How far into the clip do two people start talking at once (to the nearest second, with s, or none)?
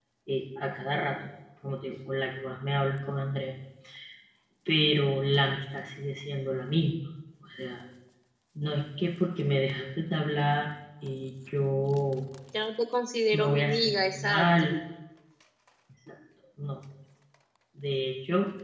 13 s